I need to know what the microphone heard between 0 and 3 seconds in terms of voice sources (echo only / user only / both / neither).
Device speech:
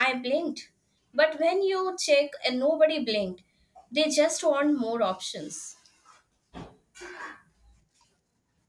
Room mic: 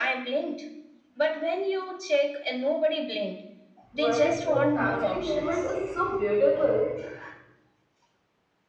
echo only